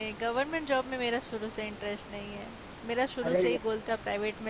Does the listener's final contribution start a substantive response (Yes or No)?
No